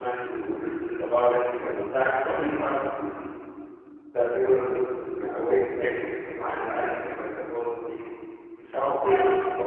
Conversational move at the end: listening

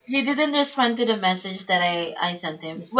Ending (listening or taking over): listening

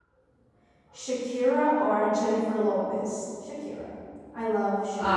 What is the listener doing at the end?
taking over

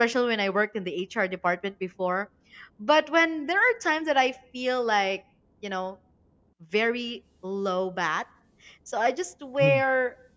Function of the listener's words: listening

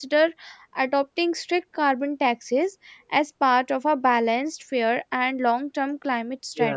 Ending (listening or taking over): taking over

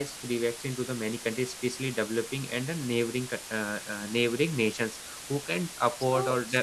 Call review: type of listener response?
taking over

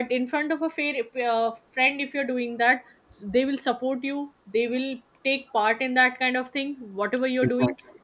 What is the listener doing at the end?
listening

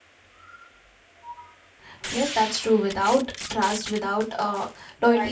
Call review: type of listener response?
listening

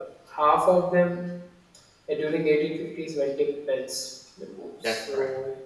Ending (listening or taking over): listening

